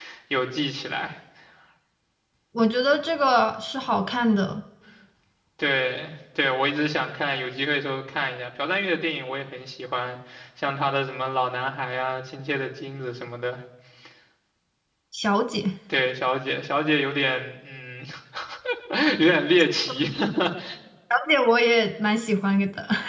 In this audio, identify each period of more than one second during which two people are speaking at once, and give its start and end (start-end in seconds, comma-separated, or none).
none